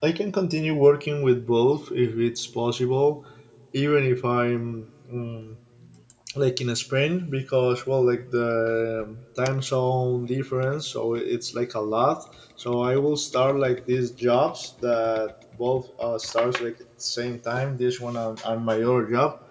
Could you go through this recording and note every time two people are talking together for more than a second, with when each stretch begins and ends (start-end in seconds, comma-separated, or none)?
none